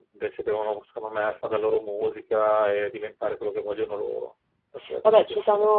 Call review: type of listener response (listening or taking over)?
taking over